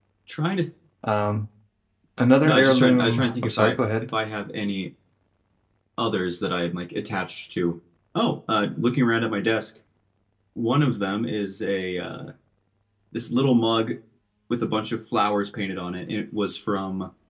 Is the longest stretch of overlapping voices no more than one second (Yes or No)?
No